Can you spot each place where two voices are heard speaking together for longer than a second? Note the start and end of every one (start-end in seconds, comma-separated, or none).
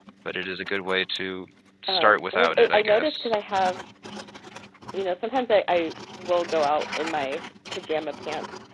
1.9-3.3